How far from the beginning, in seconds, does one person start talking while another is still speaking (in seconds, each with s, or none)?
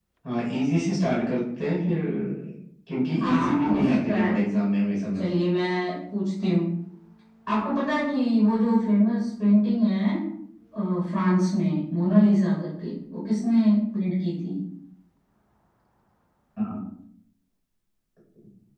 3.2 s